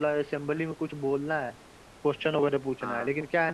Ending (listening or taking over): listening